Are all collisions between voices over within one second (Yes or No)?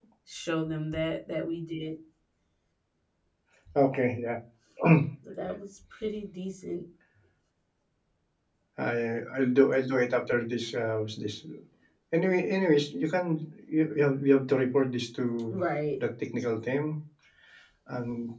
Yes